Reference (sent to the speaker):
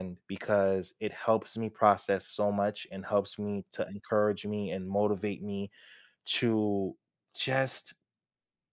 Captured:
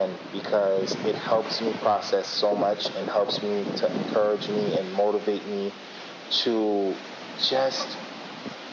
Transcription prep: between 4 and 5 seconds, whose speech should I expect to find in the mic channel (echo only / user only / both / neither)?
echo only